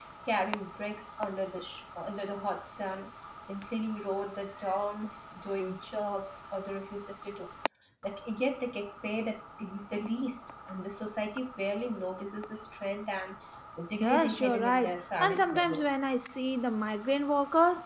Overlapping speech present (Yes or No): Yes